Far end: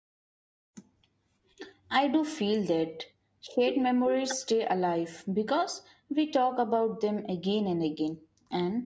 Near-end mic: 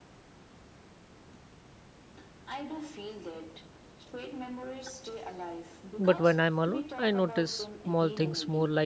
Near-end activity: present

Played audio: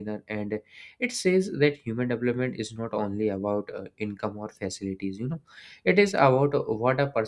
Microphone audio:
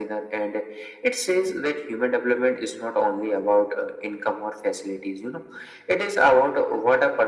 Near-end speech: none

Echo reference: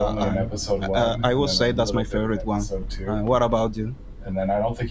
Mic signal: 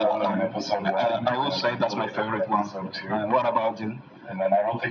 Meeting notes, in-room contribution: none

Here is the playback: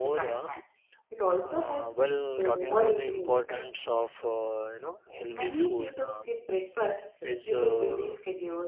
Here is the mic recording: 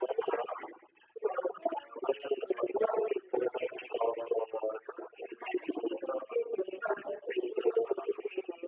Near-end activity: none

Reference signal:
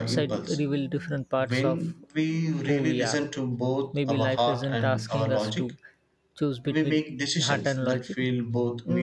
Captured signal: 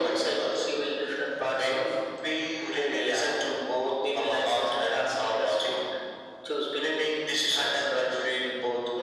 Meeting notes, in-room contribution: none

